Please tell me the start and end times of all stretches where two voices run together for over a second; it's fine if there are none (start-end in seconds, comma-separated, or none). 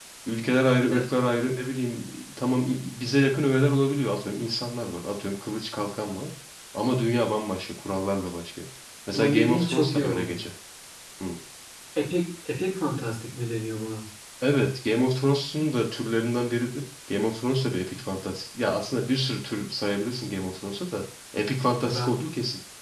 9.1-10.4